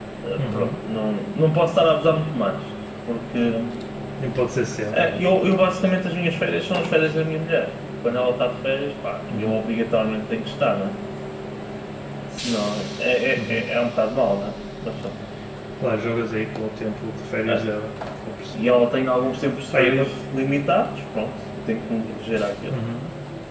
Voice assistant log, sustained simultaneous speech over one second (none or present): none